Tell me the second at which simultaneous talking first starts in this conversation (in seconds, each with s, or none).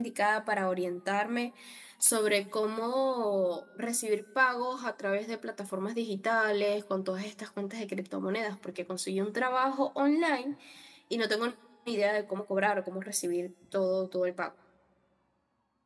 none